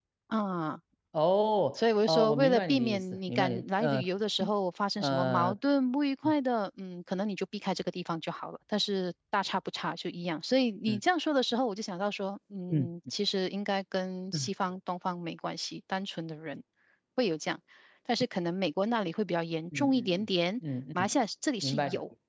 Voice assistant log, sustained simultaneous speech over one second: present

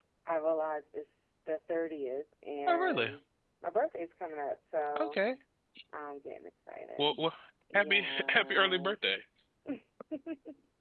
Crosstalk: present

